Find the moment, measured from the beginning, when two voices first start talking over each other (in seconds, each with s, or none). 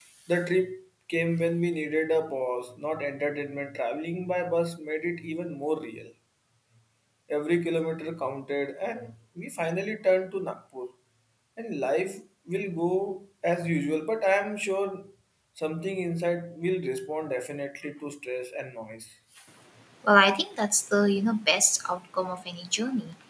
none